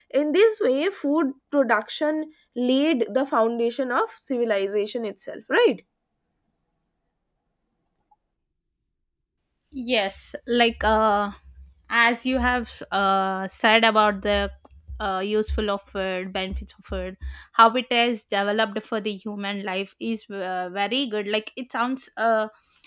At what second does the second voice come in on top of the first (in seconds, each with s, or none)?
none